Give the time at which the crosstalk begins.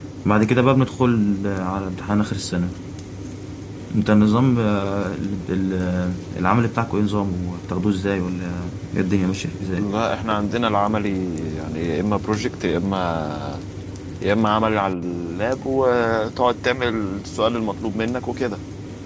none

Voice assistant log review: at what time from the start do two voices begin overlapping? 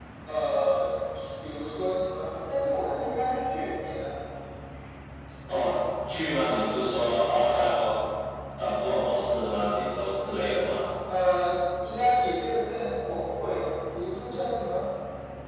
none

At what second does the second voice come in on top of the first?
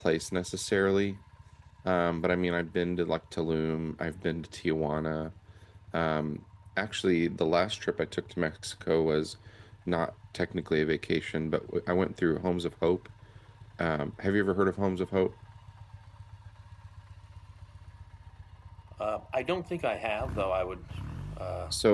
none

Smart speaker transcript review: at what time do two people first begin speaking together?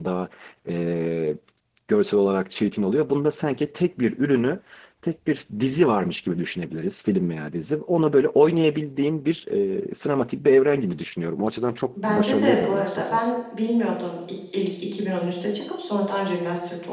12.0 s

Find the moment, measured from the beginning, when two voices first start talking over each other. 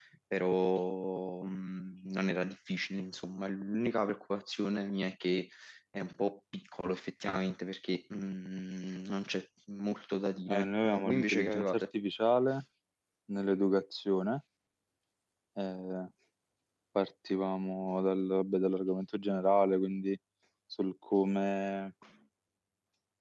10.5 s

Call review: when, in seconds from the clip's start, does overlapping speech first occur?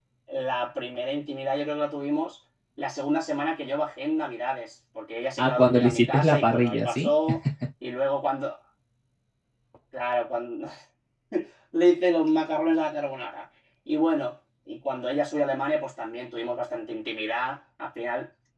5.4 s

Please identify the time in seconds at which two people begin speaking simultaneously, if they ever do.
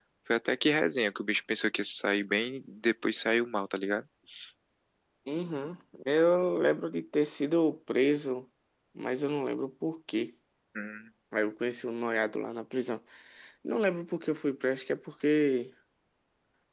none

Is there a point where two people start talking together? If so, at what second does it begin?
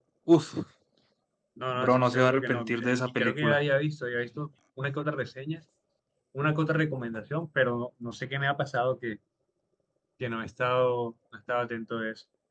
1.7 s

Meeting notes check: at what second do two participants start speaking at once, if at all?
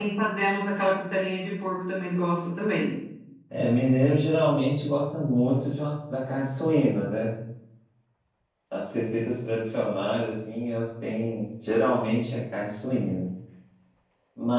none

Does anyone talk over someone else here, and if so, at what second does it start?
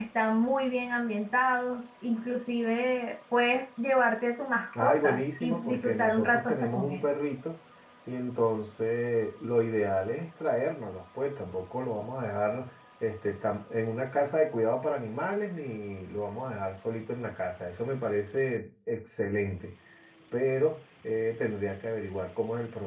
4.7 s

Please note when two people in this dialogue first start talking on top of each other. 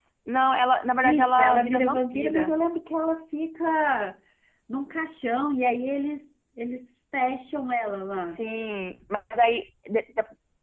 1.0 s

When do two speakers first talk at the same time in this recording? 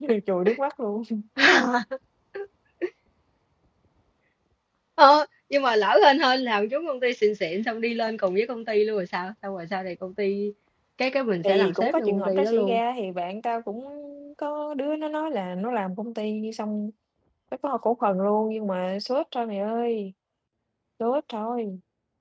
11.4 s

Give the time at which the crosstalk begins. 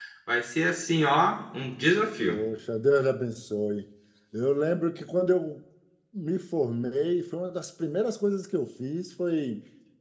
none

